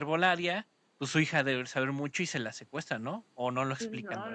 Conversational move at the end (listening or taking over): taking over